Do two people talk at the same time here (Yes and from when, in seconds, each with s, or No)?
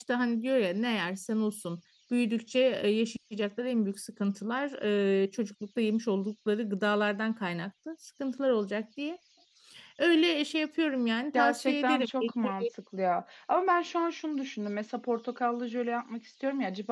Yes, from 11.3 s